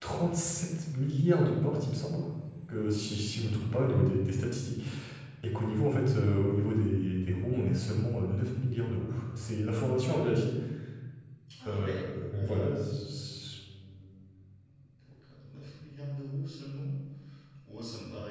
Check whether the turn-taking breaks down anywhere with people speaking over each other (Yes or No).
Yes